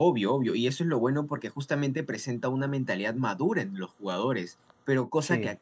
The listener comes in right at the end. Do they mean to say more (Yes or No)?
No